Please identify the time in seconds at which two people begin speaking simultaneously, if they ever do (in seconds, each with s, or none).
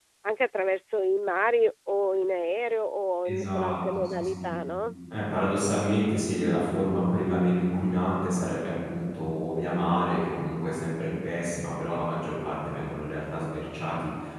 3.2 s